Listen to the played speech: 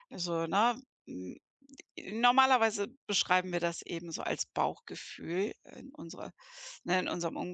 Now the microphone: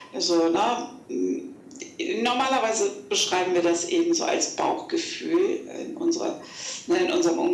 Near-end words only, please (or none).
none